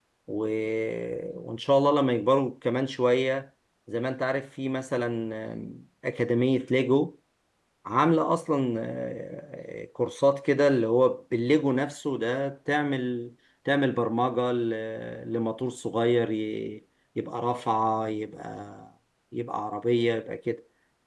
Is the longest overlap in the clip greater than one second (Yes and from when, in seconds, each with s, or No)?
No